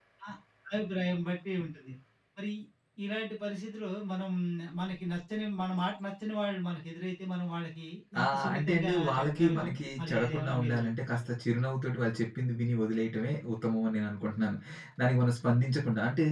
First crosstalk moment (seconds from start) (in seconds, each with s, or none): 8.2 s